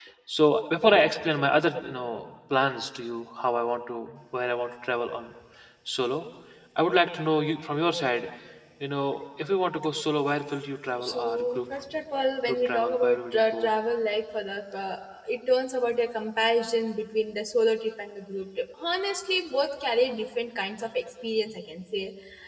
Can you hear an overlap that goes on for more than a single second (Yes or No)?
Yes